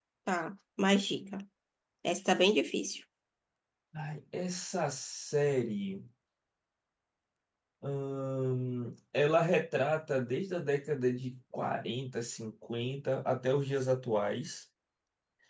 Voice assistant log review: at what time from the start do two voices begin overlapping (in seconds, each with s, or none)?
none